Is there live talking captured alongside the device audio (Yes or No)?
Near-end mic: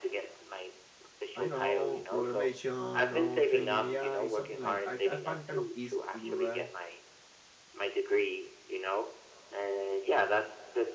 Yes